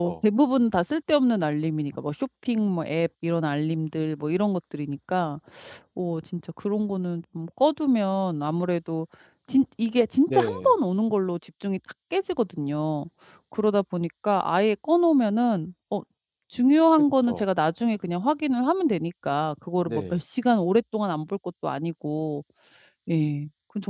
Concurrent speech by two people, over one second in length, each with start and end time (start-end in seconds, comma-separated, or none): none